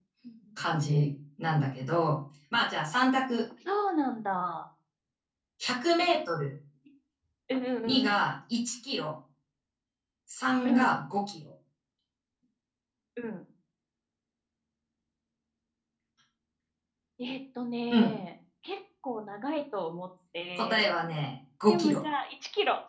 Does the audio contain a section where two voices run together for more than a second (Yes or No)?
No